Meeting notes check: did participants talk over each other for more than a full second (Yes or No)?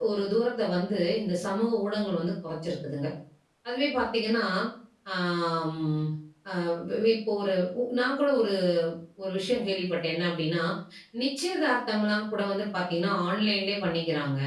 No